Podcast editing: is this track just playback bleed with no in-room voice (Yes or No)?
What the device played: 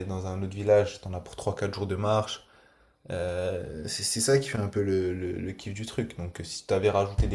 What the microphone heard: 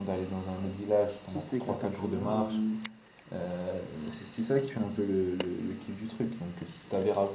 No